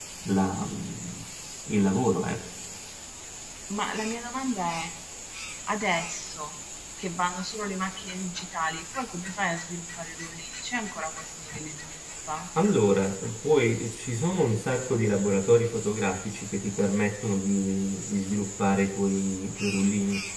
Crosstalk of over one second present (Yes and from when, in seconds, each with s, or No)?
No